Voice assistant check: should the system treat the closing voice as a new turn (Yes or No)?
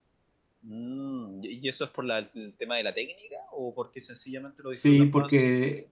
Yes